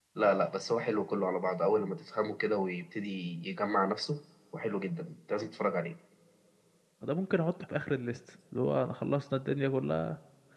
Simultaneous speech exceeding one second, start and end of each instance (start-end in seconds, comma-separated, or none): none